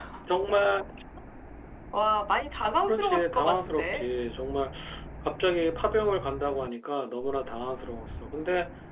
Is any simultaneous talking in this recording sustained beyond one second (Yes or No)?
Yes